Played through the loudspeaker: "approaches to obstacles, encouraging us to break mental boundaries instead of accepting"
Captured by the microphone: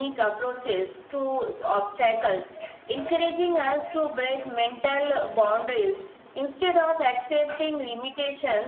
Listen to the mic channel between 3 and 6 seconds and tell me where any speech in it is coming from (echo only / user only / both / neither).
echo only